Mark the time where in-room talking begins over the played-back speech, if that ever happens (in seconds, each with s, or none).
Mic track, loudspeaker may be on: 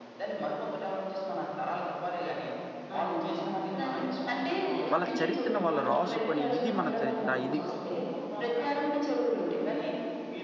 4.9 s